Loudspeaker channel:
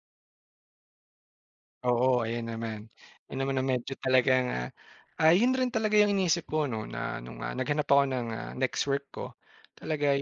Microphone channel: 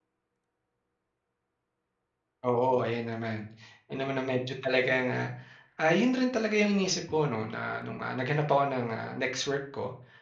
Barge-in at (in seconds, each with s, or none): none